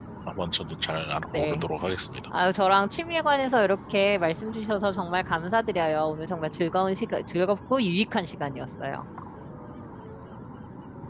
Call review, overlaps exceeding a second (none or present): none